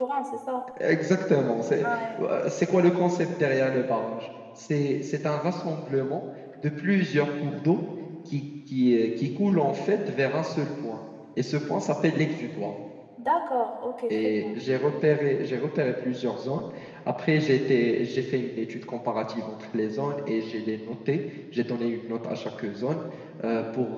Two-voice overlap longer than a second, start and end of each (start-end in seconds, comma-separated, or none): none